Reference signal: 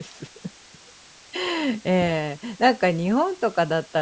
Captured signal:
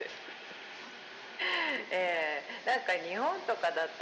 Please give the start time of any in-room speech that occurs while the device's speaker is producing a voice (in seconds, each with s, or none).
none